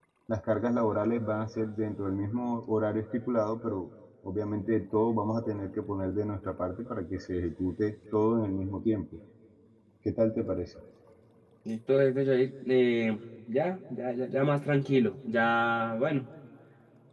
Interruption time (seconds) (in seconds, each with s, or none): none